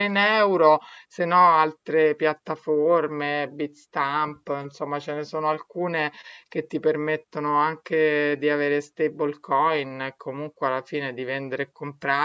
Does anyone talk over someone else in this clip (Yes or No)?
No